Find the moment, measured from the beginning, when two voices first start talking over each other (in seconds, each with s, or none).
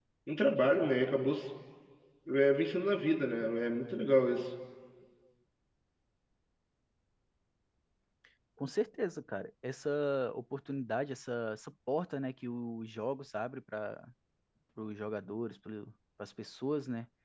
none